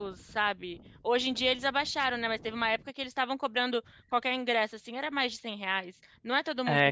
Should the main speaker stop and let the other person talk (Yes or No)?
No